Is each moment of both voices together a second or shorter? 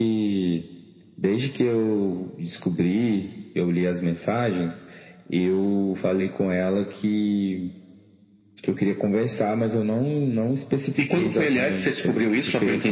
No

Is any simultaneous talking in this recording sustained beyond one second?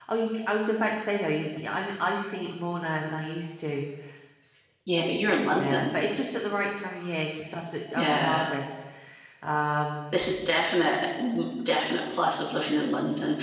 No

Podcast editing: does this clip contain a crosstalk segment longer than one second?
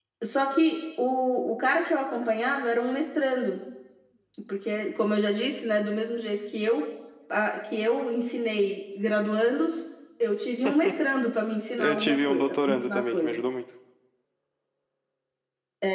Yes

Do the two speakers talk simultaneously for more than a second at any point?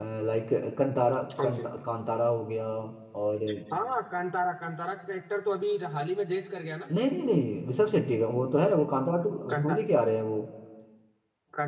No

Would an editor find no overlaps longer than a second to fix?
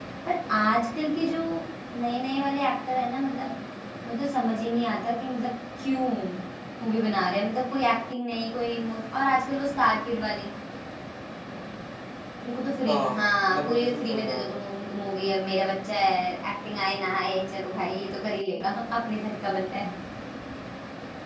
No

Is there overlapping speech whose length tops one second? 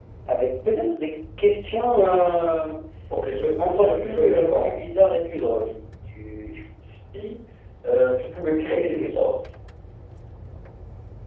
Yes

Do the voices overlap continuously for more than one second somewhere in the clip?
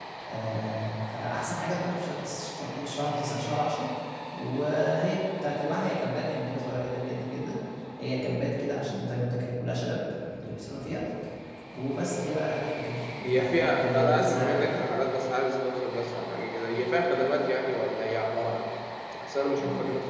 Yes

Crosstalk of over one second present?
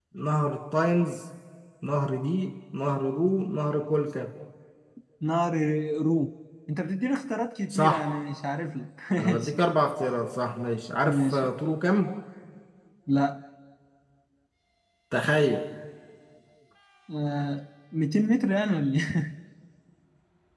No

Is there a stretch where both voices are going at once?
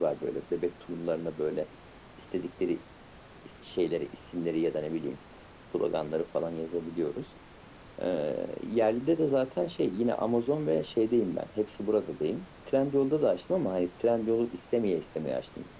No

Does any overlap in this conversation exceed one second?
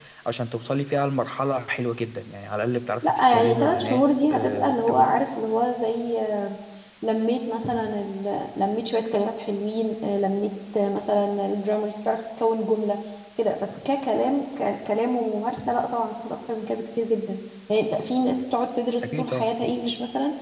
Yes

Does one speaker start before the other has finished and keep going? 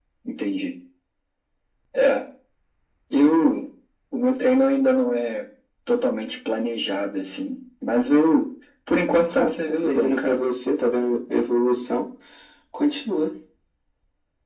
Yes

